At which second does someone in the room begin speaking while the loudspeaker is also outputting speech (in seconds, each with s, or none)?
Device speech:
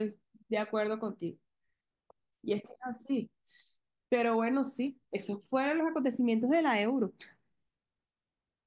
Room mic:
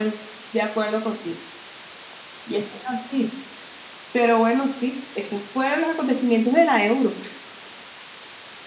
none